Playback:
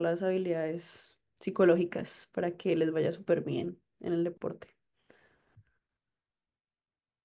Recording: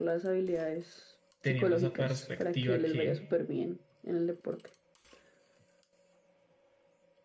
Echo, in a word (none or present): present